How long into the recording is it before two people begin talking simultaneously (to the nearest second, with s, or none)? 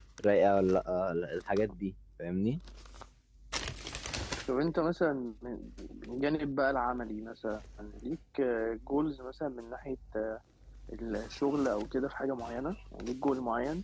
none